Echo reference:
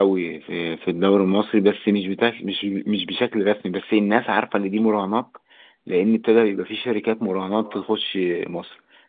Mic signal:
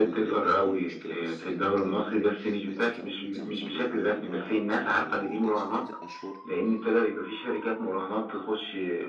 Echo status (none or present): present